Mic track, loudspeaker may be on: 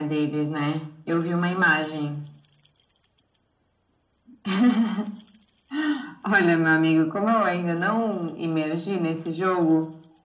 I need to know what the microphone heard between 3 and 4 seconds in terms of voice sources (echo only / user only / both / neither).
neither